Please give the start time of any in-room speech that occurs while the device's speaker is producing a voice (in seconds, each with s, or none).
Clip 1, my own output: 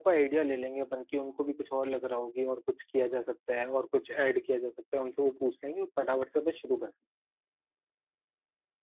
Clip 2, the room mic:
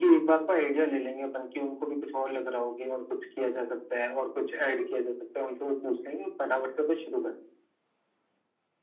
none